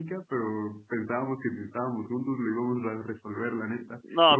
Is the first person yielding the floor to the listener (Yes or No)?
No